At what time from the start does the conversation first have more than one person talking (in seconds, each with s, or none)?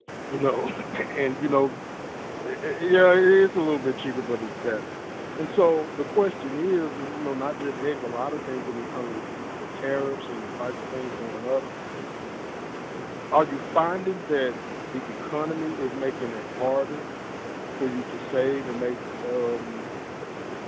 none